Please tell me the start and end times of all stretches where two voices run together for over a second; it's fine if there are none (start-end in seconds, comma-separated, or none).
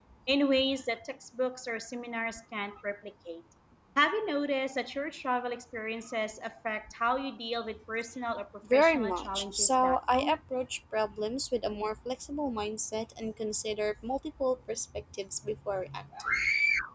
8.7-10.4